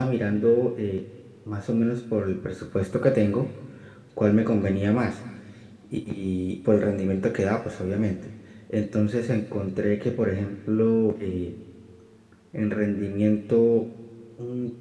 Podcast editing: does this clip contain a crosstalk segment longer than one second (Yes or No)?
No